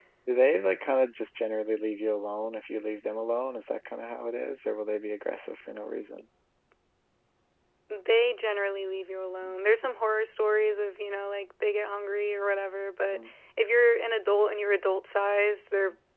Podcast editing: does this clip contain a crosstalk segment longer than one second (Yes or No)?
No